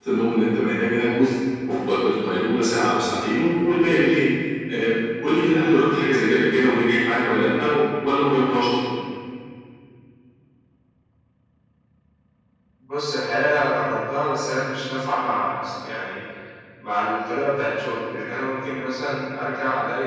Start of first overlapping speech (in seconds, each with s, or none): none